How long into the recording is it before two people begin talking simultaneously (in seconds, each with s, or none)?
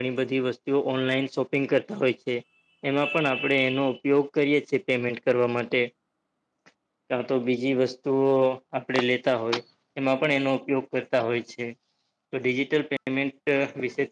none